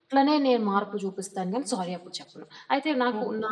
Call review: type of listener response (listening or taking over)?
taking over